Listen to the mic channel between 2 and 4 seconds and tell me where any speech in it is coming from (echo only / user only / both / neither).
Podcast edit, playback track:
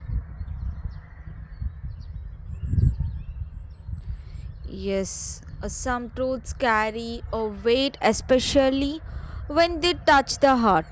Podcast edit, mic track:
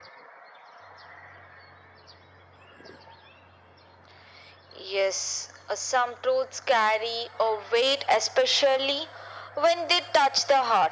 neither